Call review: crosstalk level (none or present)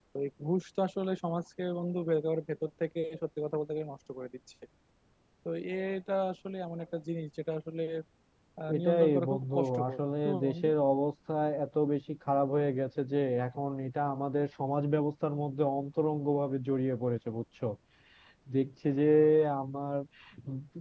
present